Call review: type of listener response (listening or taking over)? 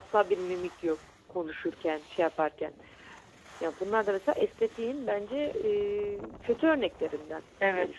taking over